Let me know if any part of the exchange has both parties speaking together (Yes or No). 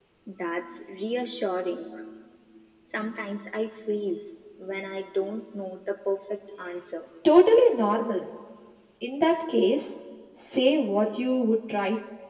No